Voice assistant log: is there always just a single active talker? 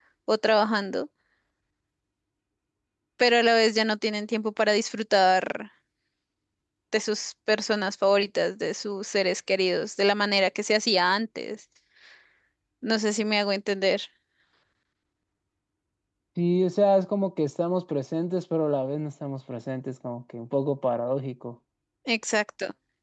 Yes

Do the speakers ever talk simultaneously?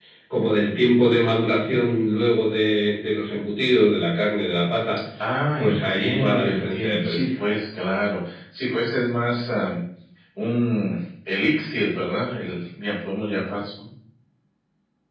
Yes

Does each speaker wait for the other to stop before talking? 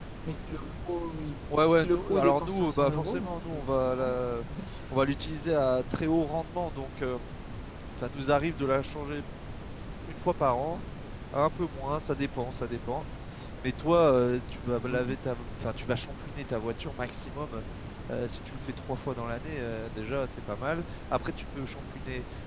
No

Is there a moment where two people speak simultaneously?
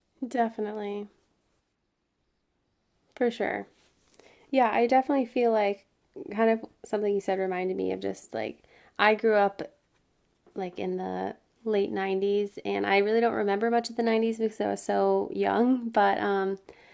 No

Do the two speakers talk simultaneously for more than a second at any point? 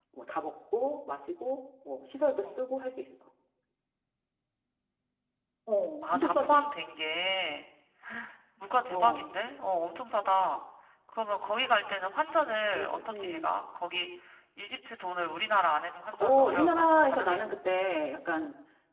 Yes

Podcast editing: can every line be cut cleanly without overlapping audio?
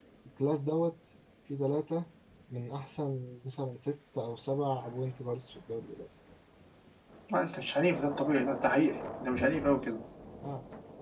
Yes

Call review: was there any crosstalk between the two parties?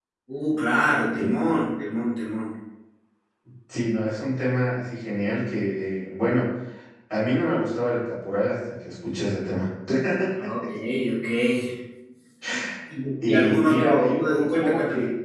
Yes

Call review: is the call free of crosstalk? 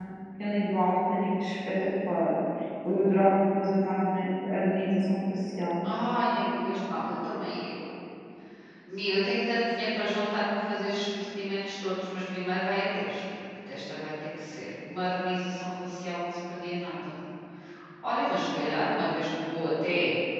Yes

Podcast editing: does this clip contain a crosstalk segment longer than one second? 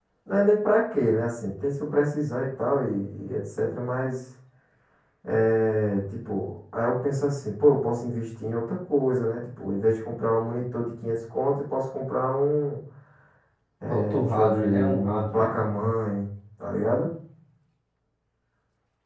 Yes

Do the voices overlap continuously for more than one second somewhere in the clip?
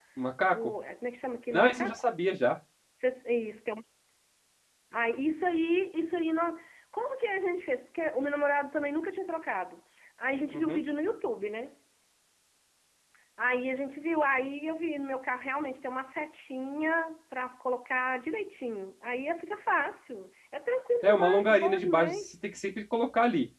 Yes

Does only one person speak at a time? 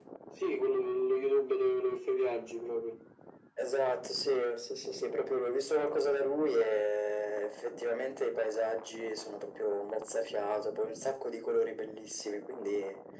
Yes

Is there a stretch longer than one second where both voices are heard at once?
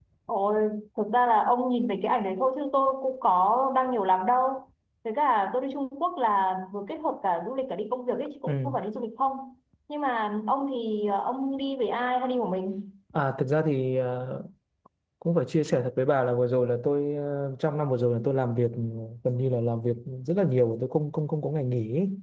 No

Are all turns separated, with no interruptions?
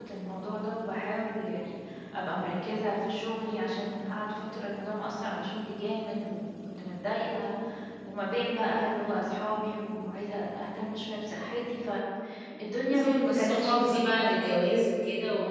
No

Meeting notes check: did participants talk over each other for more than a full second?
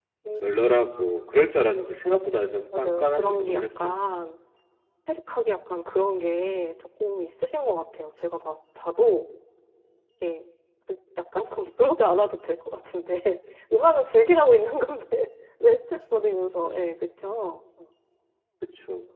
Yes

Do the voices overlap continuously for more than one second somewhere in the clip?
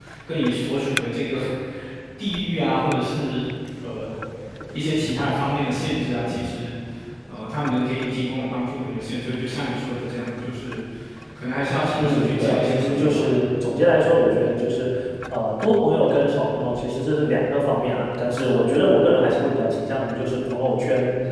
Yes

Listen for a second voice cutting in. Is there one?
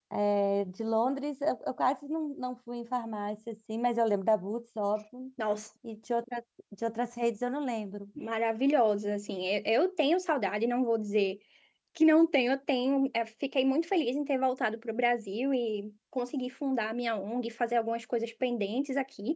No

